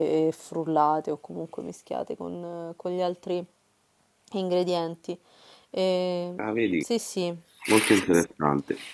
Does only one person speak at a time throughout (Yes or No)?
Yes